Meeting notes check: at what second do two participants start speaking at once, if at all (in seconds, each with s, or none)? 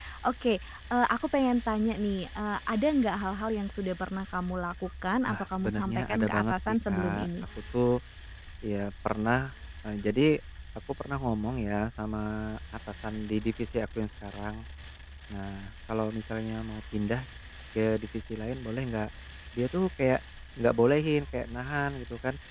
5.3 s